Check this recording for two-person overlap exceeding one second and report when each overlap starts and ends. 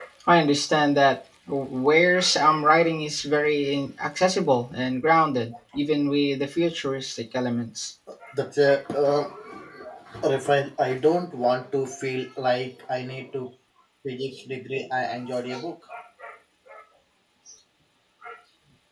none

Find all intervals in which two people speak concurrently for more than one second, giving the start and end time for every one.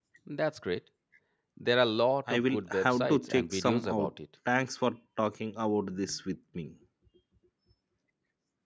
2.3-4.1

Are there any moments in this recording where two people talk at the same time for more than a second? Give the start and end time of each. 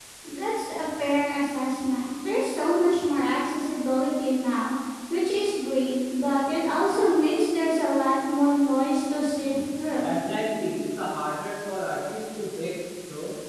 none

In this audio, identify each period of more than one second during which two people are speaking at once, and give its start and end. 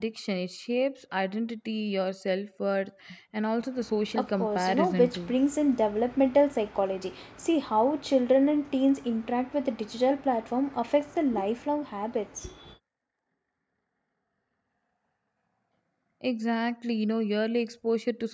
4.2-5.3

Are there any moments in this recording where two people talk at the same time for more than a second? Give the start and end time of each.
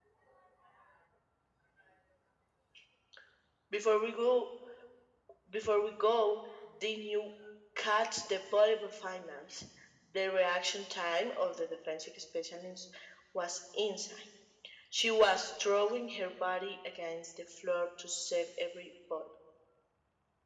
none

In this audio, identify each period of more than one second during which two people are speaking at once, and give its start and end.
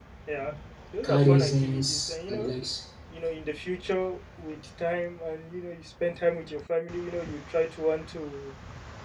1.0-2.5

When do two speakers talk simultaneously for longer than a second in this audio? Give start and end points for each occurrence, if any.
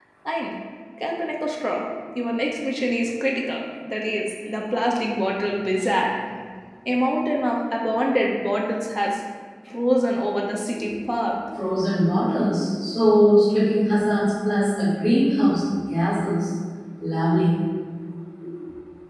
none

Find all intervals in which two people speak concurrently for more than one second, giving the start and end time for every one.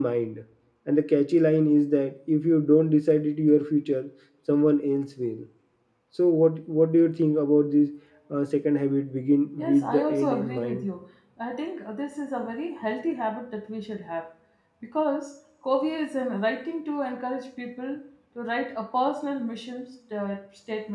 9.6-10.9

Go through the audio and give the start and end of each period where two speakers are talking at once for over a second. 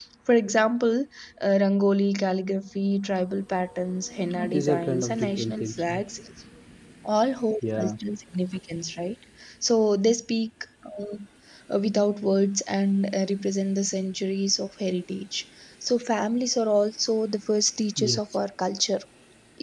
4.4-6.0

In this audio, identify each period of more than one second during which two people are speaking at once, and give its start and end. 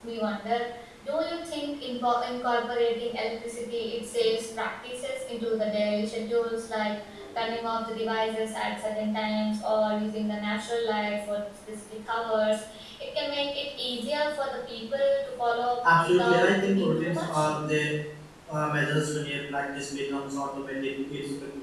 16.0-17.5

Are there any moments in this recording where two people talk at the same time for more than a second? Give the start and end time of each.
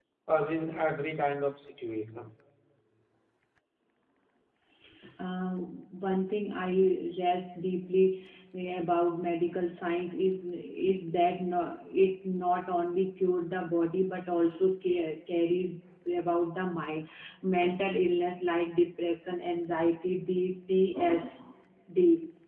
none

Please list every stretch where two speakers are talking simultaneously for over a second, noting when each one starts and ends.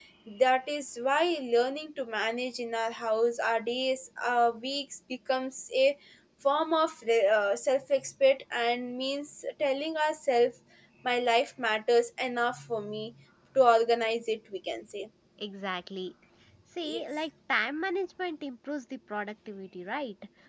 none

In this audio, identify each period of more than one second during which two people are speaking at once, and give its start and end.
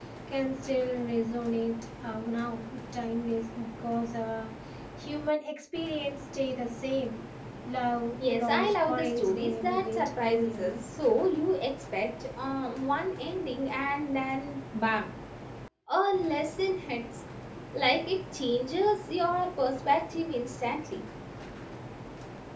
8.3-10.8

